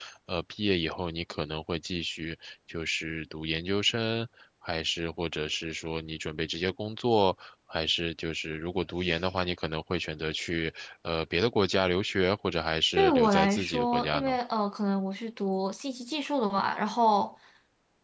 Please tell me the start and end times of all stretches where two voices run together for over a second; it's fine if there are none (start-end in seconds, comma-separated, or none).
13.0-14.4